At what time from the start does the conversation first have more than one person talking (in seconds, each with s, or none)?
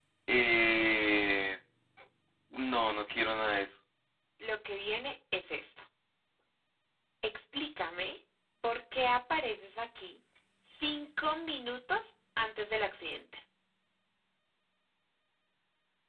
none